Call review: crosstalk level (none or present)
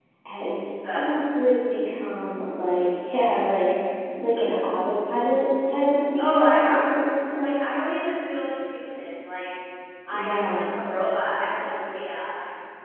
present